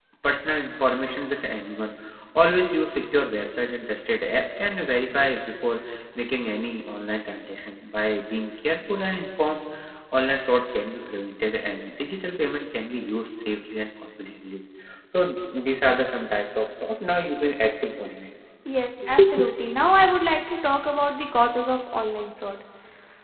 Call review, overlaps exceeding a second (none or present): none